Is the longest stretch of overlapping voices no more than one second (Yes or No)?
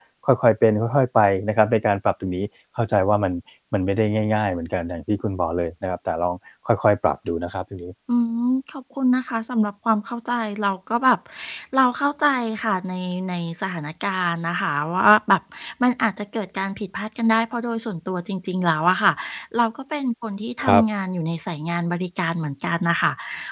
Yes